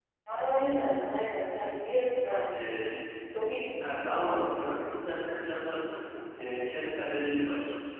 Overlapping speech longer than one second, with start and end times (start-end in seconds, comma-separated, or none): none